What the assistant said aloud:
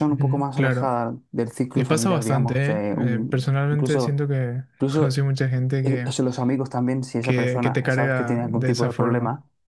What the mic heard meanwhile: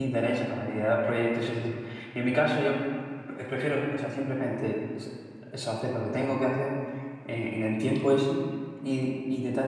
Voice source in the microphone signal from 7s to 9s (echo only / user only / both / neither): user only